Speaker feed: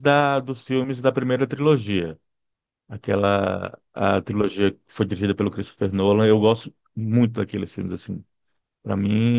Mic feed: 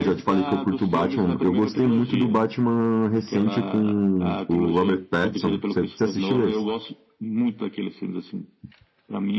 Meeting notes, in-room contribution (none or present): present